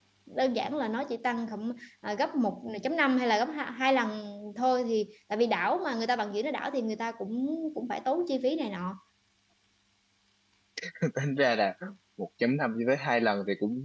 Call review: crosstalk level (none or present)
none